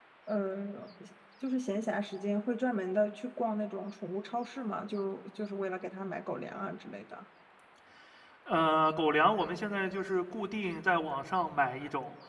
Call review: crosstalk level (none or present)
none